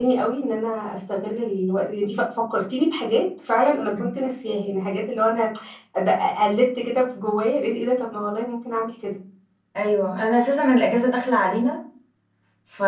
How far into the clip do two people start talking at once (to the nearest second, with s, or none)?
none